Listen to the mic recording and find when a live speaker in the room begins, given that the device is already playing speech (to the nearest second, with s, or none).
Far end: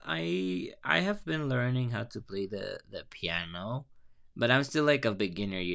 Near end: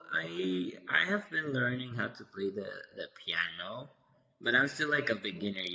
none